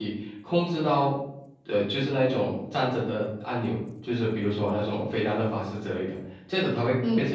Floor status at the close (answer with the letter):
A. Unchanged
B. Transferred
A